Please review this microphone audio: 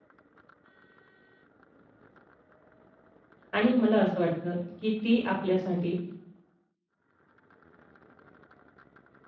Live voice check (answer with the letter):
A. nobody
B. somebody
B